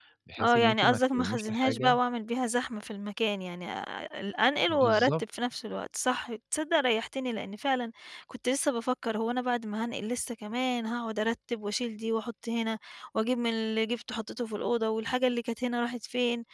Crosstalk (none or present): present